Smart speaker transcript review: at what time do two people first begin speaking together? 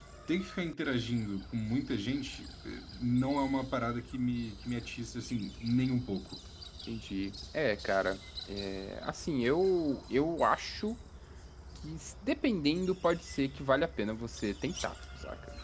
none

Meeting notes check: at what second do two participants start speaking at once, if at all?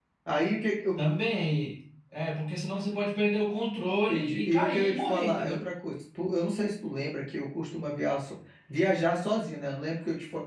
4.1 s

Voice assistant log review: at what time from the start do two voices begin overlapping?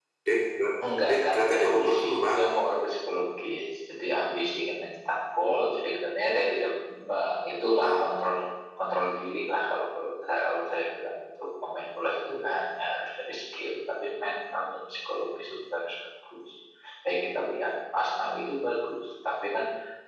1.1 s

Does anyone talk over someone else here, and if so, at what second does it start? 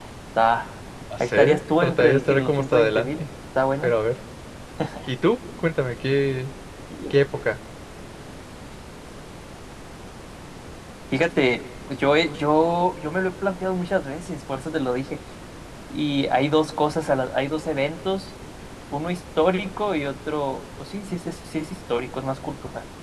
1.2 s

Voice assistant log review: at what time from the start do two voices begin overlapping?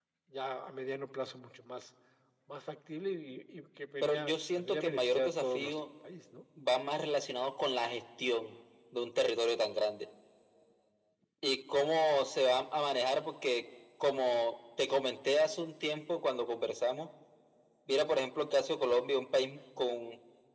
4.0 s

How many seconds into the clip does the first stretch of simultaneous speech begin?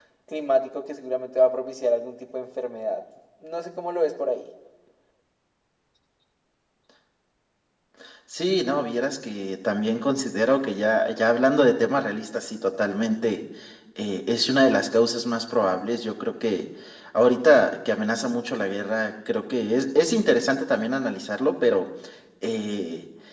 none

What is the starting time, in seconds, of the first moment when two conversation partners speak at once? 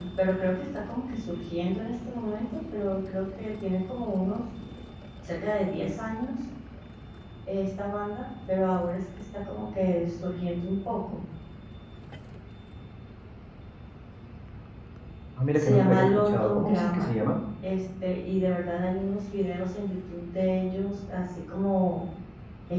15.6 s

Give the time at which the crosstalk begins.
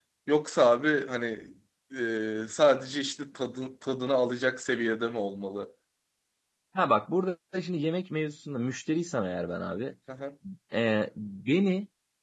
none

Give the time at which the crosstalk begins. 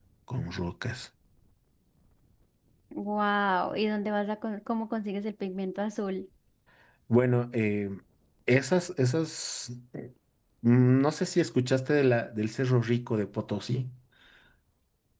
none

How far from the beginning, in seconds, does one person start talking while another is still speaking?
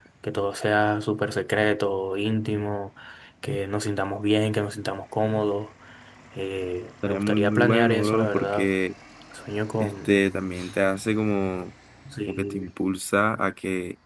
7.0 s

